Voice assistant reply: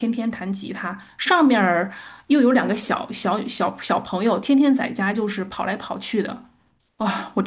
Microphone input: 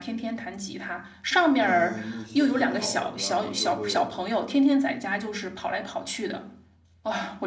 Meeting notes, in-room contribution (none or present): present